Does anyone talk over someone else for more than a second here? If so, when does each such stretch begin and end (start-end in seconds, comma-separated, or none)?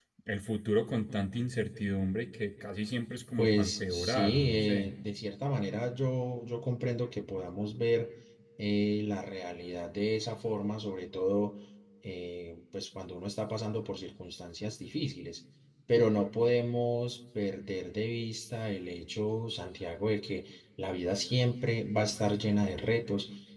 3.4-4.9